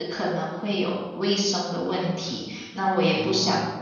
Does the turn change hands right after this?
No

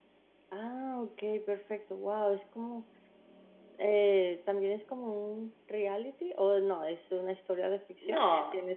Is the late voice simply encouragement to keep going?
No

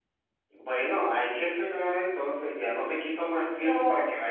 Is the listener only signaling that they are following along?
Yes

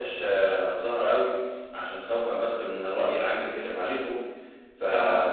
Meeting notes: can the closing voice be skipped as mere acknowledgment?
Yes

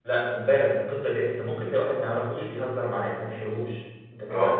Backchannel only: No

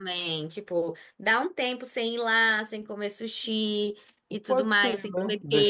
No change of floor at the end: No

